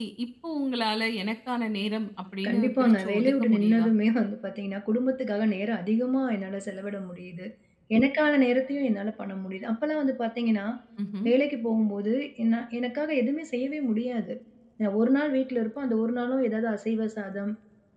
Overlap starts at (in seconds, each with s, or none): 2.4 s